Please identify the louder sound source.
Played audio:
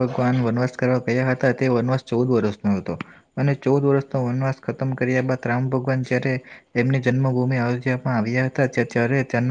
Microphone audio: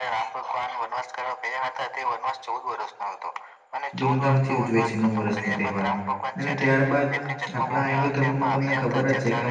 user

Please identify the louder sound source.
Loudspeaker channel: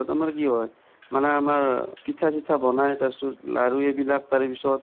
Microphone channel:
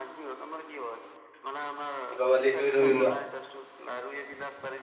user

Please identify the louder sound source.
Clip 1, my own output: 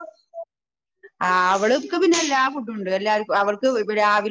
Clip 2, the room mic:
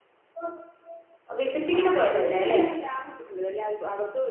user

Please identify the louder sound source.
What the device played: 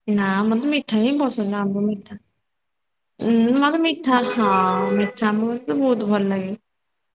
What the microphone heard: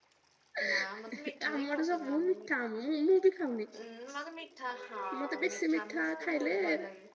user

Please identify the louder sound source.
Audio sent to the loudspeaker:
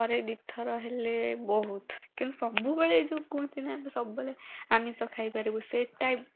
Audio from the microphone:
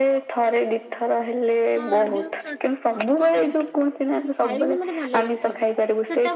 echo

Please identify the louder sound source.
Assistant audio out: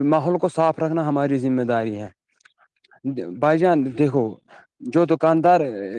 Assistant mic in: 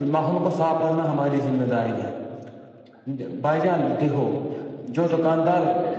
echo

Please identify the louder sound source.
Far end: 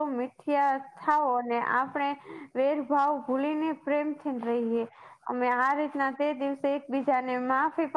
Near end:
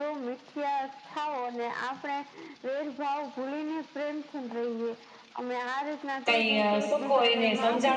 user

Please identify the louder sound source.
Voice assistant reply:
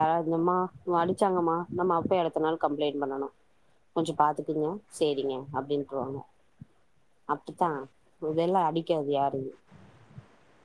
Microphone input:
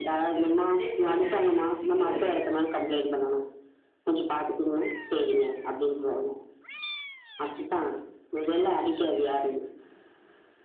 echo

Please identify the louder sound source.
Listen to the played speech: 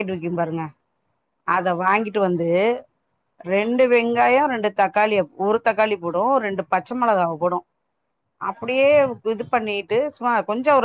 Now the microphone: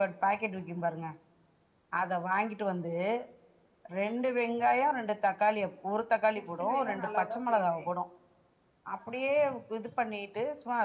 echo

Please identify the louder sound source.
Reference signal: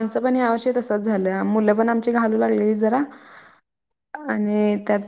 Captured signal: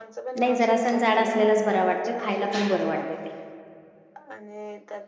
user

